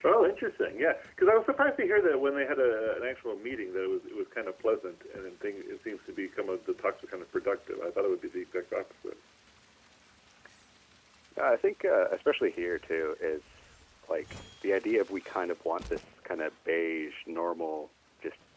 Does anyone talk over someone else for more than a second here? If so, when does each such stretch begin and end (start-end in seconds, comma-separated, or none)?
none